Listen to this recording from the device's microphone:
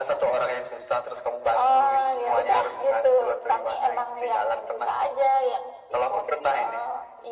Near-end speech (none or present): none